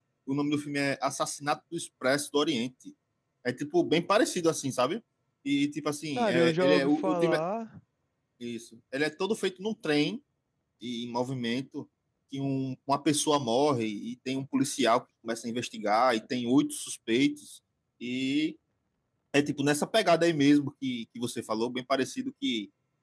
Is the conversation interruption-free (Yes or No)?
No